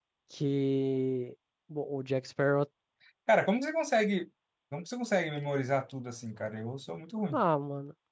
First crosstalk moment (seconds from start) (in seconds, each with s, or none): none